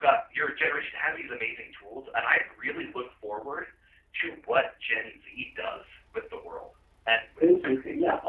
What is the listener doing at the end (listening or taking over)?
taking over